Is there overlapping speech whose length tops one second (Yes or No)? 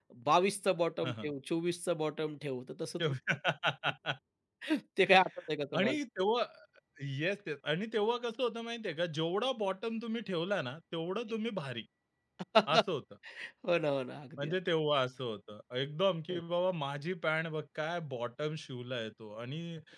No